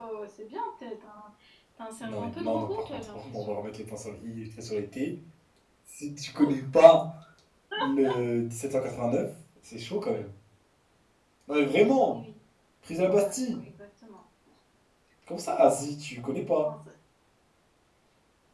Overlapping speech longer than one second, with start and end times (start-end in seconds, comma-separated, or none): 2.0-3.6